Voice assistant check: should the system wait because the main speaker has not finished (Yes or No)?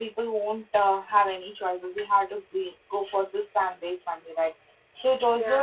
Yes